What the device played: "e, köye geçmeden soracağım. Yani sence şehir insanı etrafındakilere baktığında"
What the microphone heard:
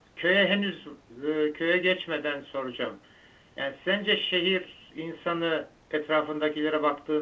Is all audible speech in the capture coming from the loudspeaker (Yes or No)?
Yes